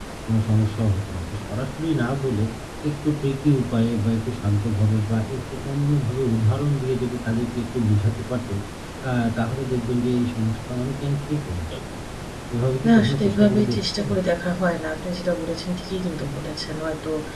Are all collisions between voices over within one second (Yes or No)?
No